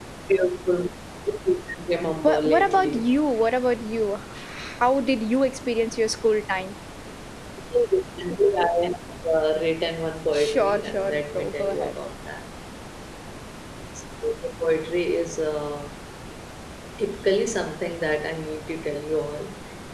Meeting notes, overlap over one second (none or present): present